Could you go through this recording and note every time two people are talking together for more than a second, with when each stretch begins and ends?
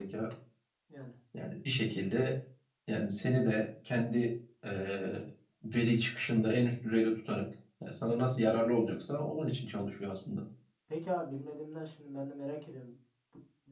none

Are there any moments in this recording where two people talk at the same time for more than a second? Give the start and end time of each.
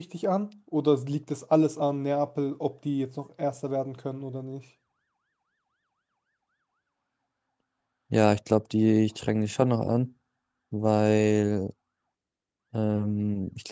none

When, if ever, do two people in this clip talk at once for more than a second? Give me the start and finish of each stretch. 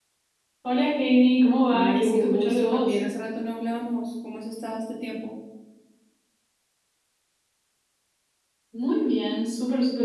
1.7-3.0

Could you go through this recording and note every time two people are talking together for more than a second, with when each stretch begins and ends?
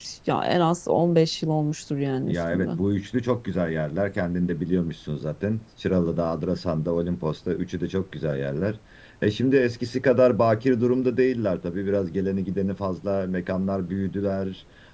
none

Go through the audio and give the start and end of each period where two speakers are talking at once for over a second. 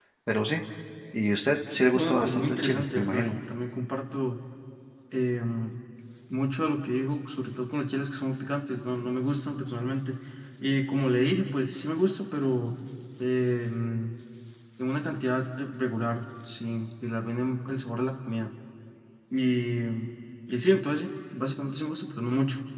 1.9-3.4

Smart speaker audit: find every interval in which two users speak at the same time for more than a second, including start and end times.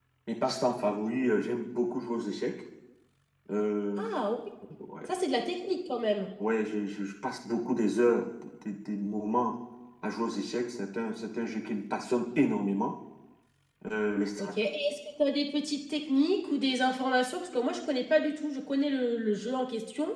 none

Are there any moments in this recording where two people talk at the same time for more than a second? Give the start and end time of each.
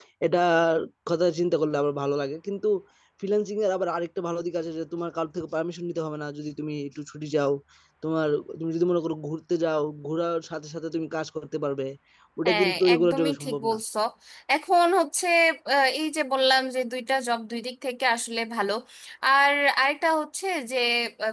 12.5-13.8

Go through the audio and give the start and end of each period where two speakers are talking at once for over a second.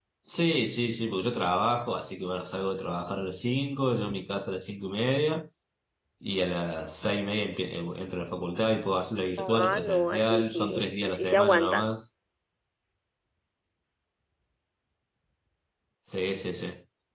9.4-11.9

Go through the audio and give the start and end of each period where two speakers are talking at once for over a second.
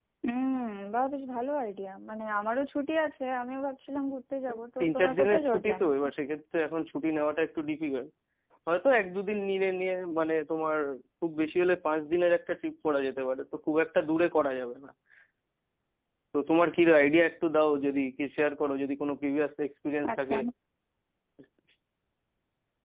4.8-6.0

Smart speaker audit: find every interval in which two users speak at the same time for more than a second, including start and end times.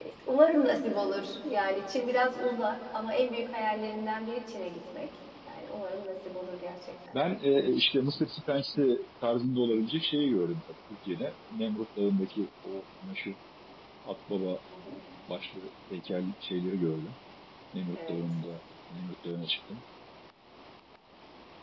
none

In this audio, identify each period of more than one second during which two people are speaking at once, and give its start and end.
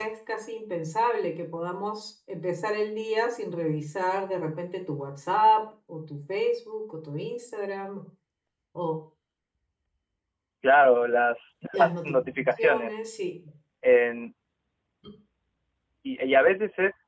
11.7-13.0

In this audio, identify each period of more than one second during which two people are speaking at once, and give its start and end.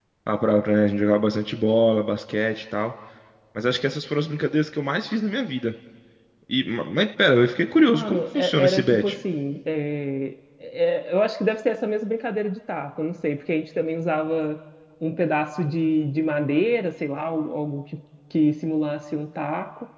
7.9-9.1

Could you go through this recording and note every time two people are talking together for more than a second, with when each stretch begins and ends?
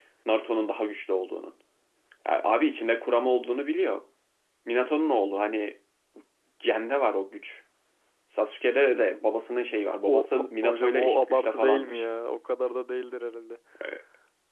10.1-12.0

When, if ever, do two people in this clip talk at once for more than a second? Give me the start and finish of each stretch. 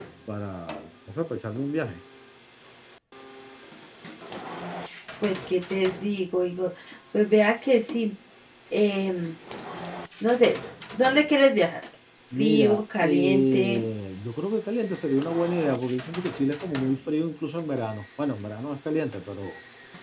12.3-13.8

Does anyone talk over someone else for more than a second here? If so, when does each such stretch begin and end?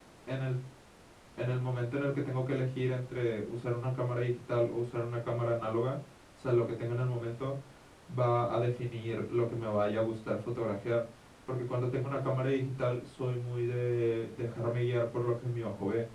none

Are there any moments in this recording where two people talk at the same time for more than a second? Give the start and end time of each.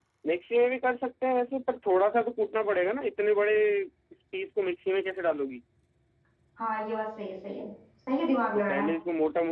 none

